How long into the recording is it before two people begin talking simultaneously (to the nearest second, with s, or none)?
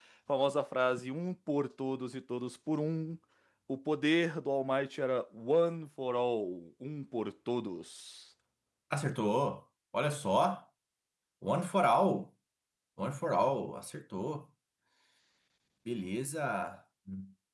none